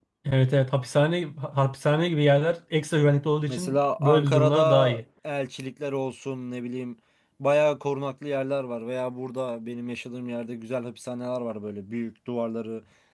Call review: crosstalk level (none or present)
present